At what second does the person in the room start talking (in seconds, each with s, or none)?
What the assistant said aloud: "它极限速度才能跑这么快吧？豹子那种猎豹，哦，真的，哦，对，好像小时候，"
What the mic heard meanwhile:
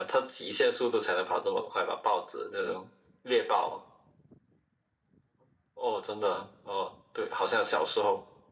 none